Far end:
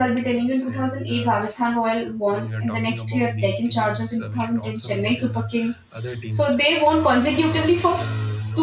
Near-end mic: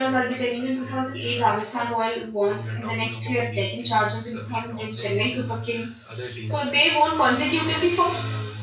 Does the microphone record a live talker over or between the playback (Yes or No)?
Yes